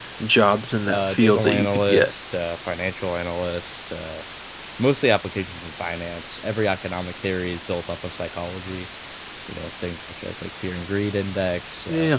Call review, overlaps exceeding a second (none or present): present